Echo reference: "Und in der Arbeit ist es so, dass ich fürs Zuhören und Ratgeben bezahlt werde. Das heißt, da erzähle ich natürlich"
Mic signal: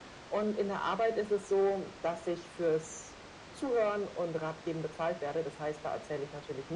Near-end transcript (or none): none